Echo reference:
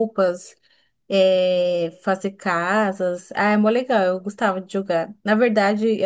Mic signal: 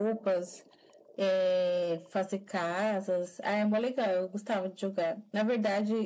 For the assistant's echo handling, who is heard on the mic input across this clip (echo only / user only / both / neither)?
echo only